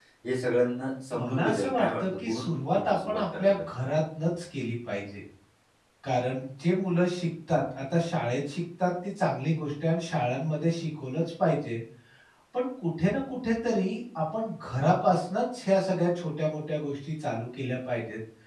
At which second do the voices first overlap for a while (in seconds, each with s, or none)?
1.2 s